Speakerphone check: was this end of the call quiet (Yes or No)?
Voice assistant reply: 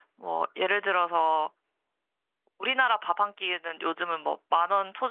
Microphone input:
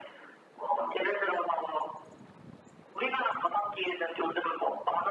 Yes